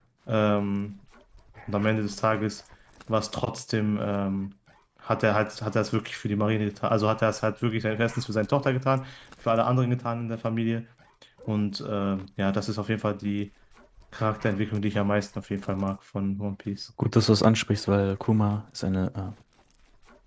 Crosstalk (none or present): none